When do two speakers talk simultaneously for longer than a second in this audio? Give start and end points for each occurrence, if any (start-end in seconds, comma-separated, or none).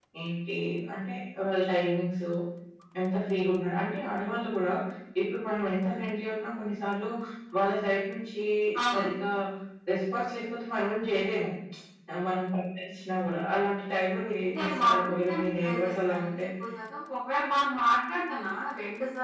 14.6-16.4